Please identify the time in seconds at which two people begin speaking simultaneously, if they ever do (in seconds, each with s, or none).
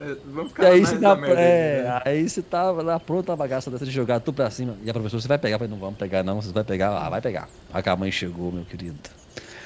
0.6 s